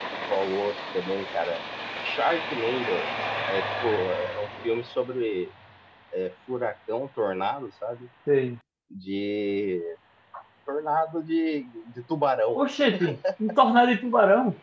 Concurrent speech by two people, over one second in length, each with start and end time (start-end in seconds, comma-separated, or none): none